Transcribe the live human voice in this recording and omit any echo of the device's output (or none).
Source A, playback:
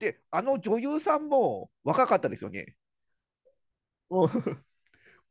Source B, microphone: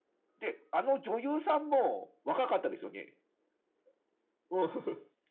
none